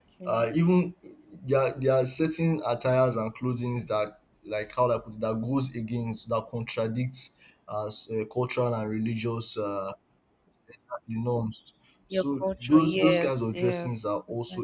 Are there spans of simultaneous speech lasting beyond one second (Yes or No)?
Yes